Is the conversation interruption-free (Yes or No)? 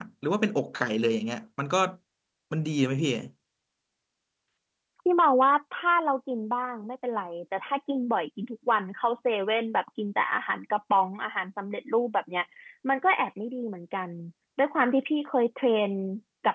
Yes